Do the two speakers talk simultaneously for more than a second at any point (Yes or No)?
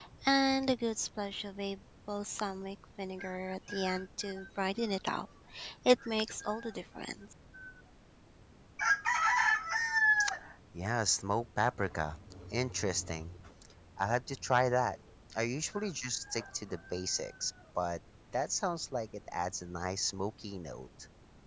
No